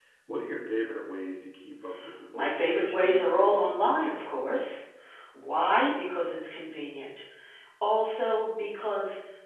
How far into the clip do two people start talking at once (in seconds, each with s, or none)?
2.3 s